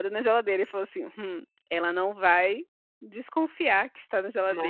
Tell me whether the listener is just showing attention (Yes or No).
Yes